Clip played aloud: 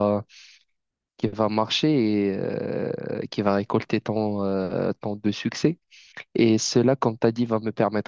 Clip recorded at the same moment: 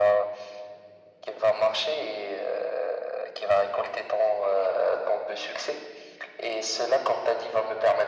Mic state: echo only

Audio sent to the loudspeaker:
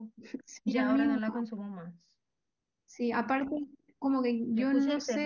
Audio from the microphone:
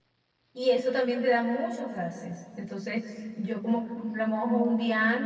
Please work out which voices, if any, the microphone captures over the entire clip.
user only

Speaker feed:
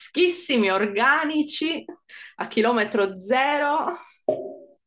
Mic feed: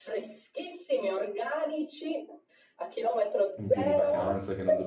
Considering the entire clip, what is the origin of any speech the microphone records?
both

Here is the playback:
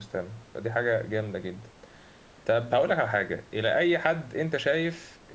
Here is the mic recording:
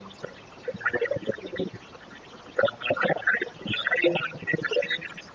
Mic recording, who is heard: echo only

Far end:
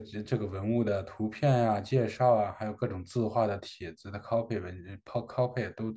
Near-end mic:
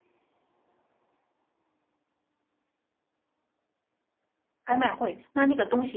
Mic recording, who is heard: user only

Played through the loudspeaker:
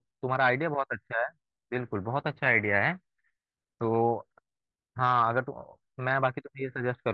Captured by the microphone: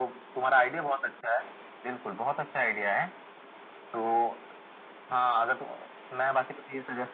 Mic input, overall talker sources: echo only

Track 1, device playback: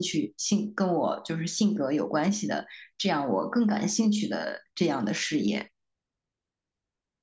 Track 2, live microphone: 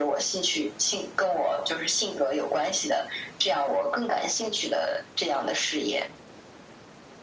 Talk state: echo only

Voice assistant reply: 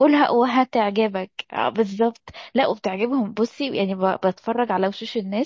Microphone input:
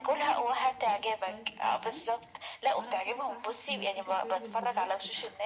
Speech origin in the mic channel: both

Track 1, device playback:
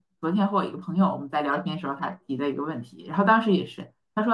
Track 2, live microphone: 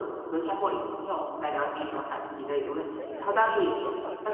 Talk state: both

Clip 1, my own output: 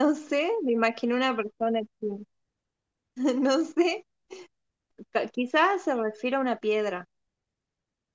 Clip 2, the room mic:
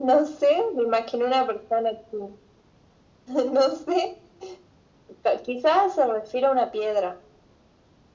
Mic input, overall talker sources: echo only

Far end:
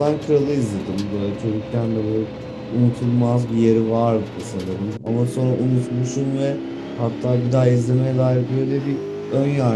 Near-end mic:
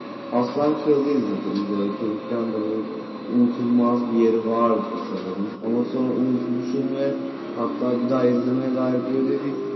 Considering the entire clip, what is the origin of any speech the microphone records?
echo only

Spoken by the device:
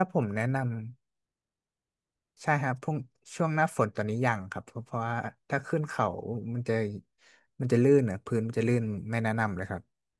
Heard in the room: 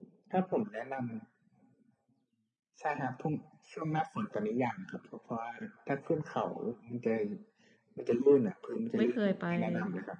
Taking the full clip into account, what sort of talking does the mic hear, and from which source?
both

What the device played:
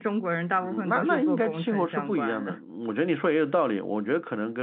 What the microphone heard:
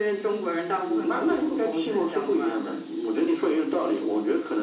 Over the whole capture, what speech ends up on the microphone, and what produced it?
echo only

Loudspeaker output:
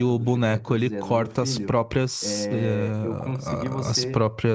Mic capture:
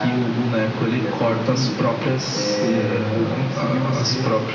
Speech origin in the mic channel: echo only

